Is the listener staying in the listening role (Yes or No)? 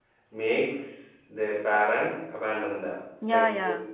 No